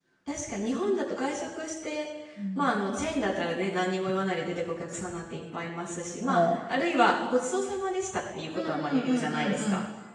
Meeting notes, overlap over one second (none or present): present